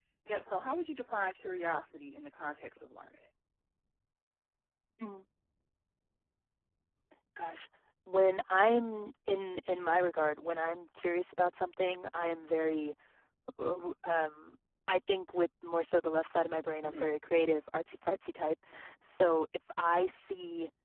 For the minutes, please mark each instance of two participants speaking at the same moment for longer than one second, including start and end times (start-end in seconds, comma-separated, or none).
none